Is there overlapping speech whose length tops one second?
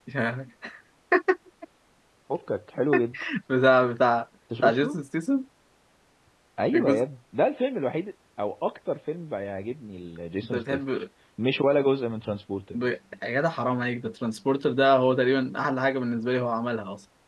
No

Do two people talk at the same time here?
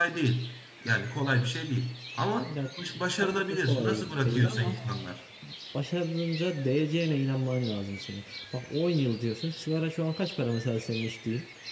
Yes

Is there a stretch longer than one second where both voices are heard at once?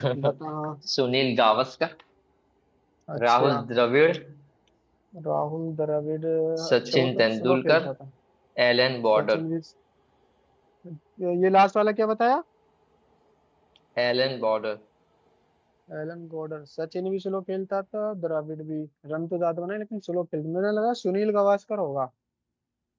Yes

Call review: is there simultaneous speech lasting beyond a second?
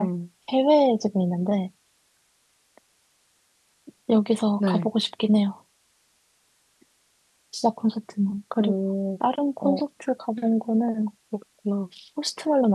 No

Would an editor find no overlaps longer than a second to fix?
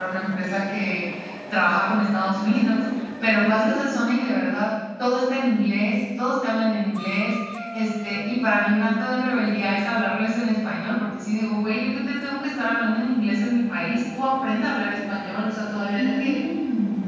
Yes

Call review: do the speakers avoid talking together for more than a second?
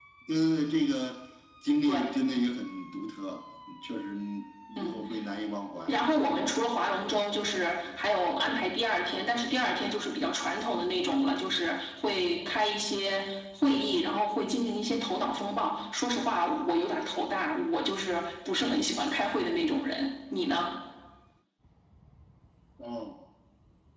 Yes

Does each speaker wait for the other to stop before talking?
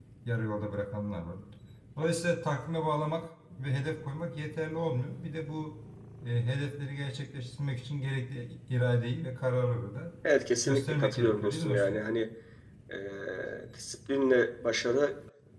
No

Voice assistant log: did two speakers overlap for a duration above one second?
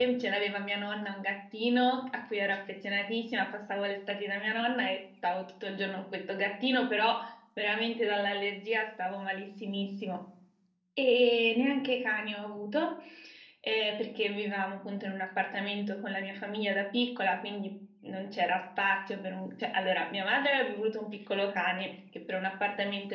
No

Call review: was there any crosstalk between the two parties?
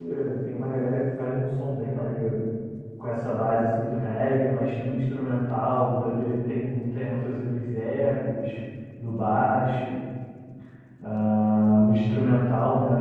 No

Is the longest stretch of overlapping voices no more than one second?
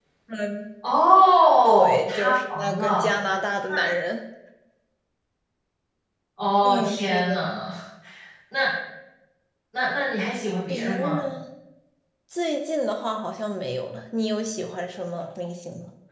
No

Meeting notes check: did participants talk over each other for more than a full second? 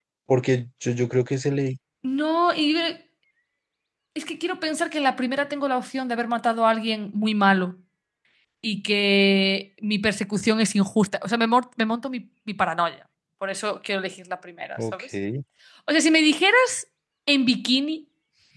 No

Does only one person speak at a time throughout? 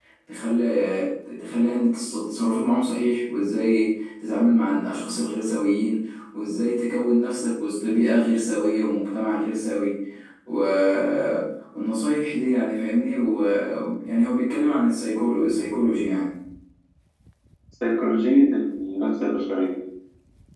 Yes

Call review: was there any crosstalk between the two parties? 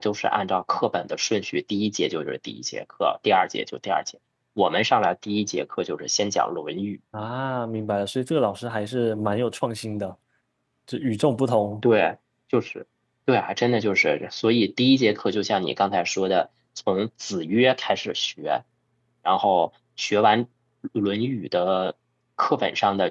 No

